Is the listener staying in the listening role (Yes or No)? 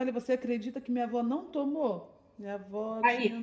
Yes